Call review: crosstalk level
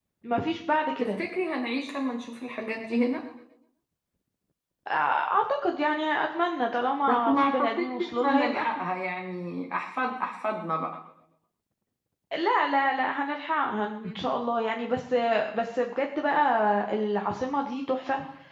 present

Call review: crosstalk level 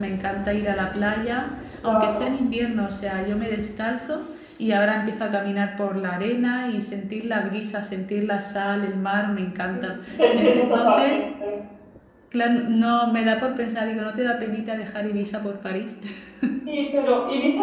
present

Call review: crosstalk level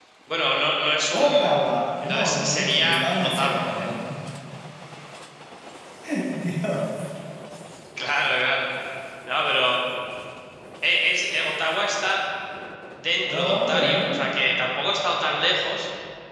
present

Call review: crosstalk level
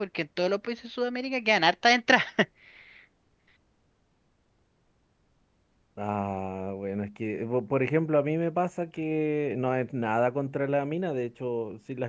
none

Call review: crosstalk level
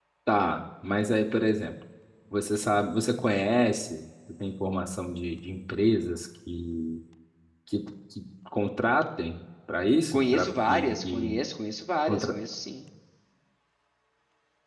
present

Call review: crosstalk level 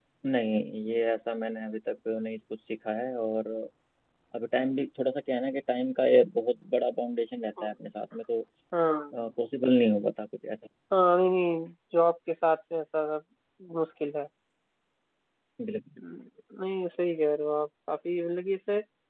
none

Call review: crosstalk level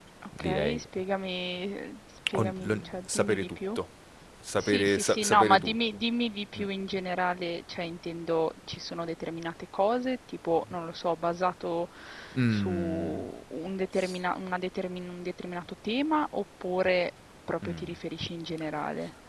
present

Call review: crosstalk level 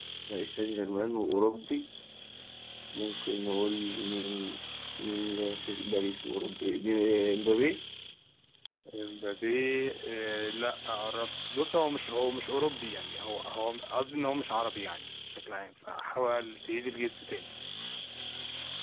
none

